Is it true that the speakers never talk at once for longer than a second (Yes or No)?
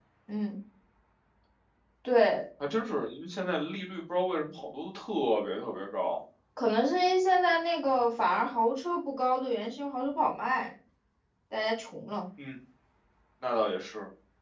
Yes